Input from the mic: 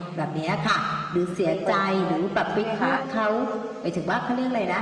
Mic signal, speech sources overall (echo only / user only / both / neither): both